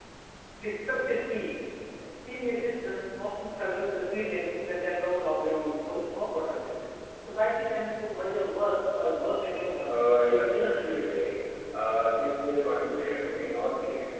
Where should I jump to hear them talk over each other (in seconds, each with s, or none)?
9.9 s